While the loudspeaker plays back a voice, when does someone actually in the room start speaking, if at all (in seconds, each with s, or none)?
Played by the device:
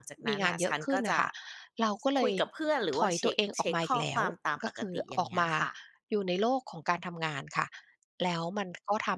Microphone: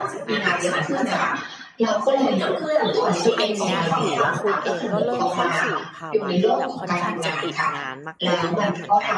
3.4 s